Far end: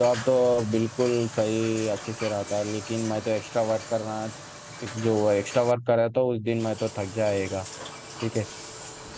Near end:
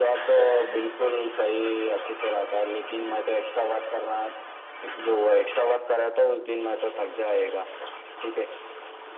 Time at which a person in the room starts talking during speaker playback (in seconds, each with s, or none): none